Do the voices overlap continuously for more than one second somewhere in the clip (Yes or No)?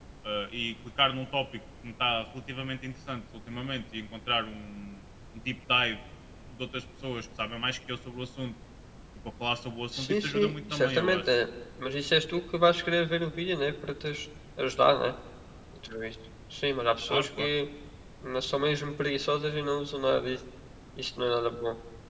Yes